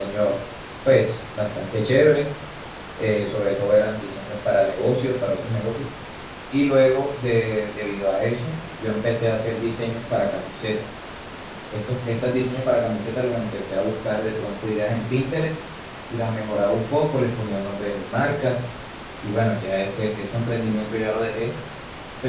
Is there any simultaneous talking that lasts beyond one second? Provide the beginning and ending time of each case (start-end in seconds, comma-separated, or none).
none